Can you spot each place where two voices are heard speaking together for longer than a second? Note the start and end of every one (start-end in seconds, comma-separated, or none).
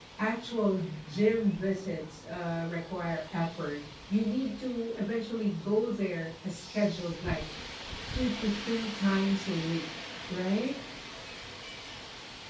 none